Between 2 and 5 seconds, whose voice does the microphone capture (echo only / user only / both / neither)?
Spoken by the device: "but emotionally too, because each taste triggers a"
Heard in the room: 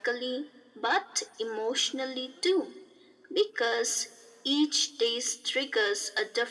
echo only